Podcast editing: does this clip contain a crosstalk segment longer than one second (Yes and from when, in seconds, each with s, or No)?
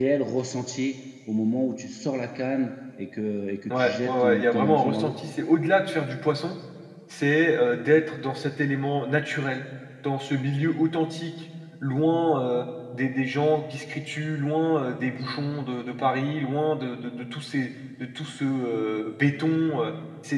Yes, from 3.7 s